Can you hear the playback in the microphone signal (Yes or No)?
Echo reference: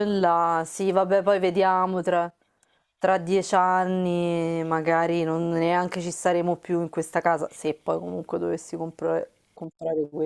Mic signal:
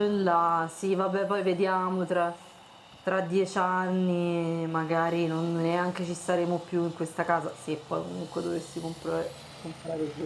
Yes